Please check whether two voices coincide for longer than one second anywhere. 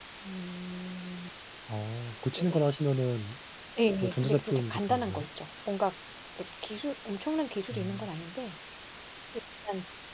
Yes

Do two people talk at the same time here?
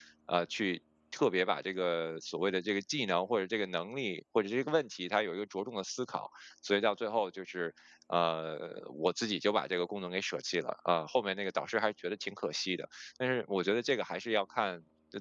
No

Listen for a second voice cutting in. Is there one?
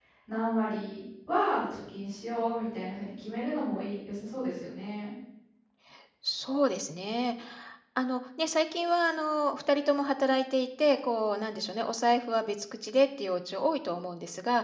No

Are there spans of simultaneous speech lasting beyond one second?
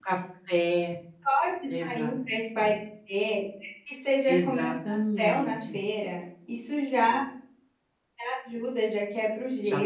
Yes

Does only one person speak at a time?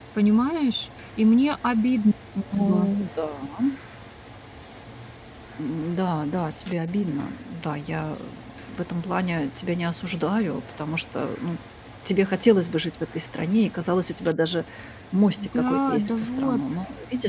No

